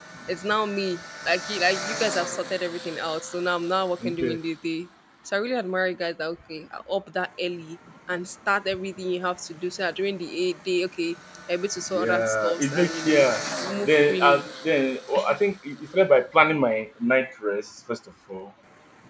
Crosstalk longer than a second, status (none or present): present